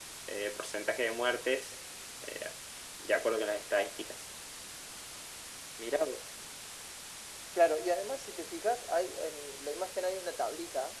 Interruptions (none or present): none